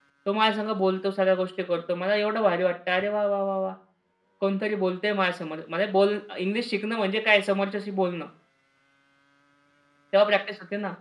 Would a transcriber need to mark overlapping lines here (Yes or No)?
No